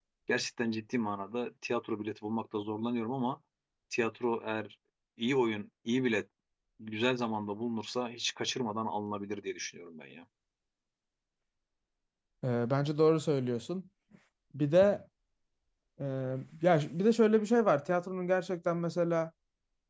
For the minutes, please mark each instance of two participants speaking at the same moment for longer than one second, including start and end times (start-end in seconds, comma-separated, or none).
none